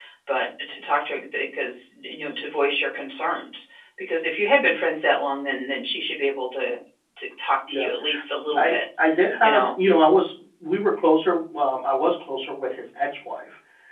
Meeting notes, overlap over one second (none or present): none